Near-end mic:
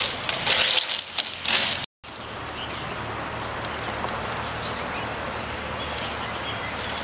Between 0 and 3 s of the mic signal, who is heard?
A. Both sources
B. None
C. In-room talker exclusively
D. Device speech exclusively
B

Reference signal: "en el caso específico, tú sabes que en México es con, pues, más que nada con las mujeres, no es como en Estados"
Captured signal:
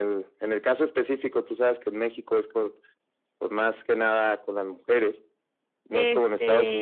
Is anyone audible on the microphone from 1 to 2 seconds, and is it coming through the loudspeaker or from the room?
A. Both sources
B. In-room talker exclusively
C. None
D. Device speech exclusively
D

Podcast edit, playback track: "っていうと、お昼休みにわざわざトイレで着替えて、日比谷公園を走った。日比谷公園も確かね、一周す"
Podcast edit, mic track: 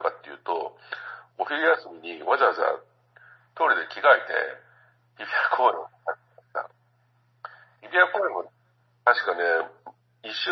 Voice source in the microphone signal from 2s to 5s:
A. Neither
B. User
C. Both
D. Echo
D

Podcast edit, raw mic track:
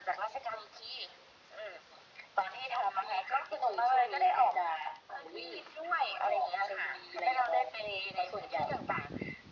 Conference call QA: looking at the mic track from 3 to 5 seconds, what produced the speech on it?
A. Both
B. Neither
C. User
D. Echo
D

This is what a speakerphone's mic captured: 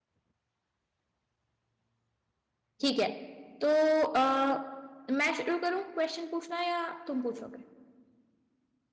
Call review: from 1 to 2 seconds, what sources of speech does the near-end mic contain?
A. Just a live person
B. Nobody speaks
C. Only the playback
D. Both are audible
B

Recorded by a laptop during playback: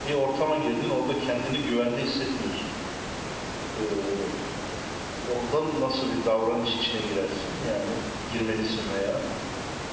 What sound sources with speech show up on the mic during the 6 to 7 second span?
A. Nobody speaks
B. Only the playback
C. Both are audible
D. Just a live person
D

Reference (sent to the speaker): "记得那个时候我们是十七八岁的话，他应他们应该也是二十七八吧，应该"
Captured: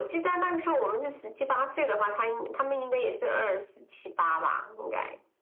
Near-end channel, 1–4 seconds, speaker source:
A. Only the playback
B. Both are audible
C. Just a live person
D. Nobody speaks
A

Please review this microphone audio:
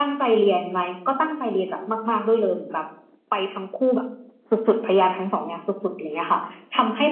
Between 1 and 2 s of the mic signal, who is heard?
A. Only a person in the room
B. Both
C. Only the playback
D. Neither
C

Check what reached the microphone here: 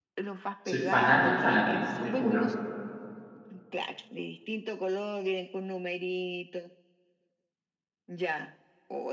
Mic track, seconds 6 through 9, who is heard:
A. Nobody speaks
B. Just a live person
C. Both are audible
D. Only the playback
D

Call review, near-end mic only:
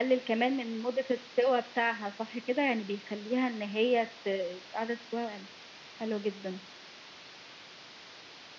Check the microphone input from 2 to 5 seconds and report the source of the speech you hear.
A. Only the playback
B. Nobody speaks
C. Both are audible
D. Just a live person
A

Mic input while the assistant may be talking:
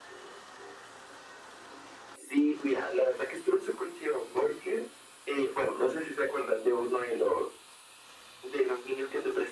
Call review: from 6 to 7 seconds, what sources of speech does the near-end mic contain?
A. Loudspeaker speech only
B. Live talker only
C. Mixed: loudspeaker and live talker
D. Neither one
A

